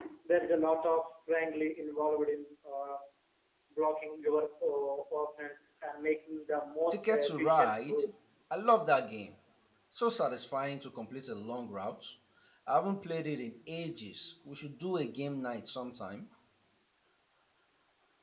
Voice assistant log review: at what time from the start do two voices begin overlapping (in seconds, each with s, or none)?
6.9 s